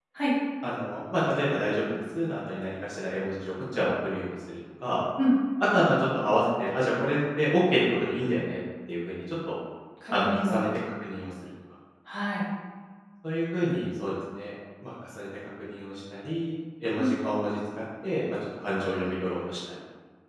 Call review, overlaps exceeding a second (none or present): none